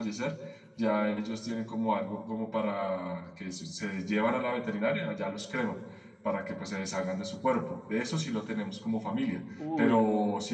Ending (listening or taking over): listening